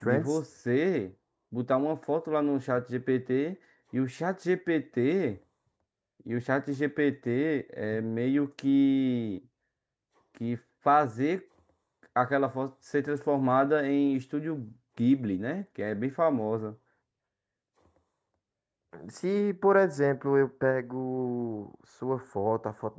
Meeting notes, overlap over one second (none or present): none